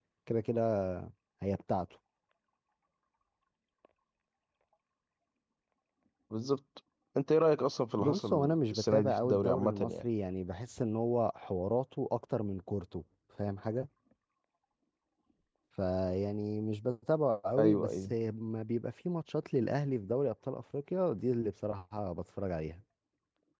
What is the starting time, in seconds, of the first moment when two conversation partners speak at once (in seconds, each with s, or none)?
8.0 s